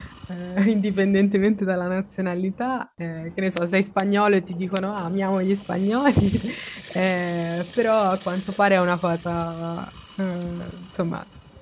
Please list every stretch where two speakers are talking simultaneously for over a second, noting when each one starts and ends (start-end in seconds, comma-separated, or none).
none